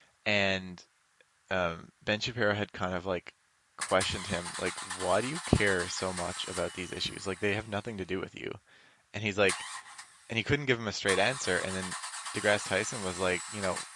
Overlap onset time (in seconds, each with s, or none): none